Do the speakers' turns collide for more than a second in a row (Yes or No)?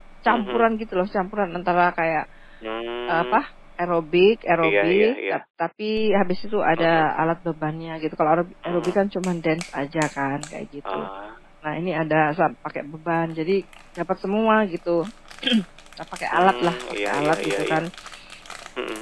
Yes